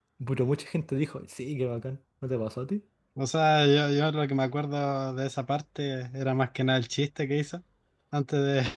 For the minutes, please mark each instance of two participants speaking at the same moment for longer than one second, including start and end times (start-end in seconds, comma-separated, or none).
none